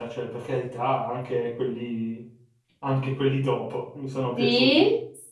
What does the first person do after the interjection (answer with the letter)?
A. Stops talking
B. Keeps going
A